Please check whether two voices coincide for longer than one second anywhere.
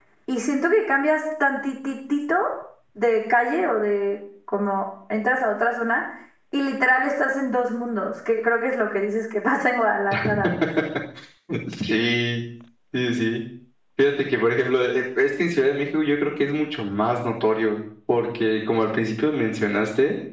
No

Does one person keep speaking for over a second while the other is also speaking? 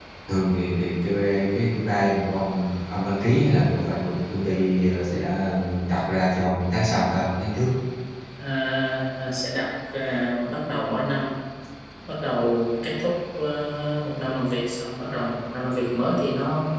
No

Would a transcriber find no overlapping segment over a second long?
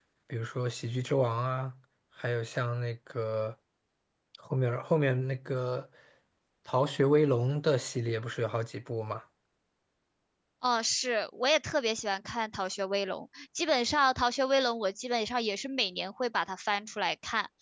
Yes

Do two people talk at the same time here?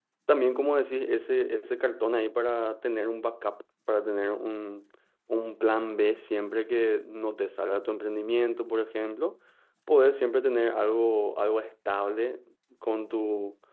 No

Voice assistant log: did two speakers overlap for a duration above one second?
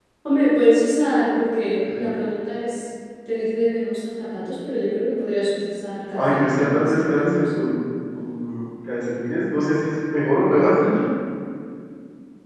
Yes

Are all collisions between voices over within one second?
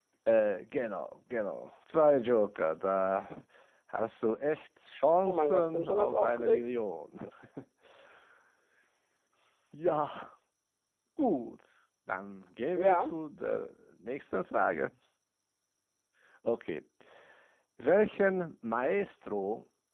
No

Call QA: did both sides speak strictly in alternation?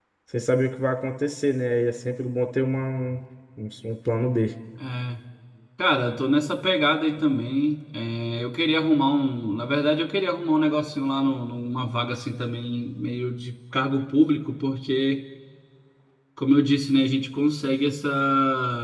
Yes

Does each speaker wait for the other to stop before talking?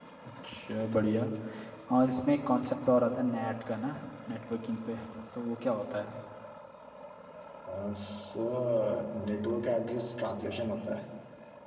Yes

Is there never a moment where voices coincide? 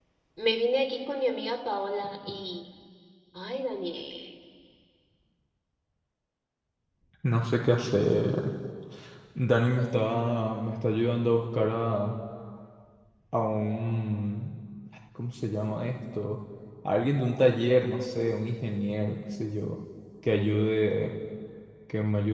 Yes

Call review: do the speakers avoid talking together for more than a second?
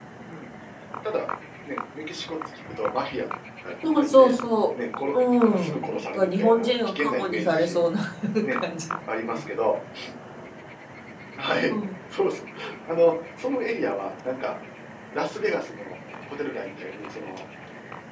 No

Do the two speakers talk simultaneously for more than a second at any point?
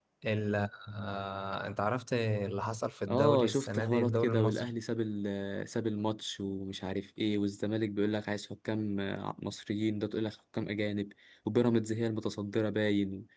Yes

